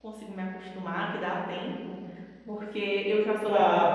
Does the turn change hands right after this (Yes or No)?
No